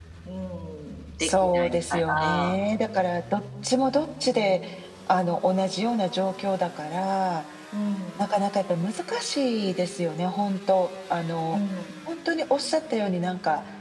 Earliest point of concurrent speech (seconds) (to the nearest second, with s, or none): 1 s